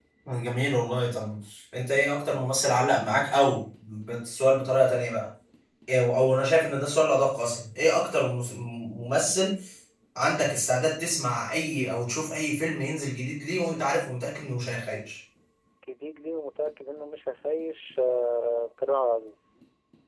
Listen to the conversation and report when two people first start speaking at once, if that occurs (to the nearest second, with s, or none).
none